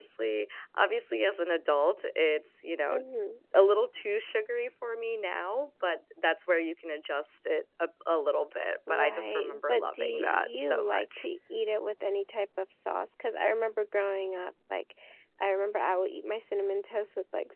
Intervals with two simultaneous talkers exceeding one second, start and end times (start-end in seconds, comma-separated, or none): 8.9-11.3